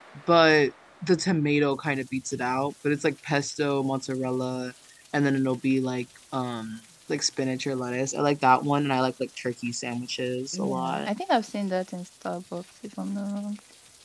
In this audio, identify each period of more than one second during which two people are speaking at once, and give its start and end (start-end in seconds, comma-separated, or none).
none